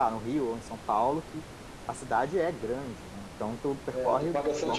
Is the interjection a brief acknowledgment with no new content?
No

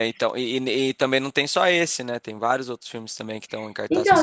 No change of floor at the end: No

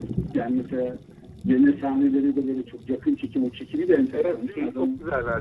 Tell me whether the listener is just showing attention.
No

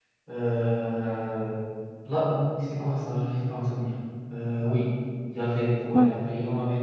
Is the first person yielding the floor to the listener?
No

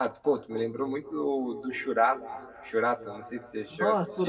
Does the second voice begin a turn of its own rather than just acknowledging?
Yes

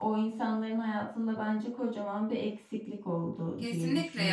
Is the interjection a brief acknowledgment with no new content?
No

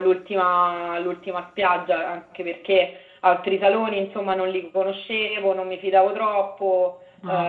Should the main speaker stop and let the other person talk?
No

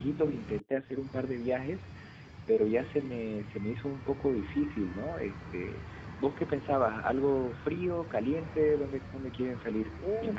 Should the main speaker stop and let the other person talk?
Yes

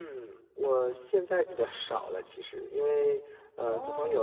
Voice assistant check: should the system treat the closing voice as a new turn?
No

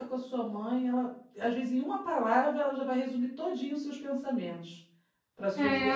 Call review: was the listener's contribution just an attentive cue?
No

